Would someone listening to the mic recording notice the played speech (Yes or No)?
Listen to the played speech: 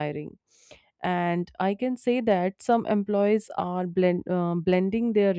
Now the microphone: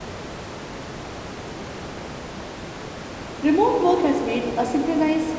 No